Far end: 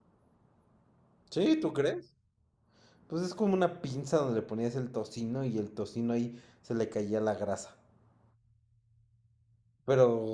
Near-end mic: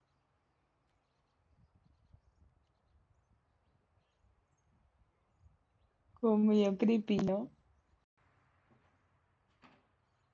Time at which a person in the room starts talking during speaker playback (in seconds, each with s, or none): 6.1 s